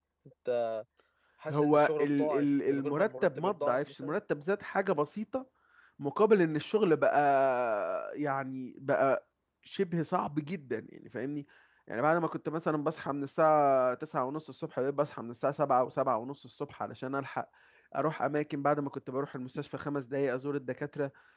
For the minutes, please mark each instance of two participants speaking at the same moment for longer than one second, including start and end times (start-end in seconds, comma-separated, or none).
1.5-4.2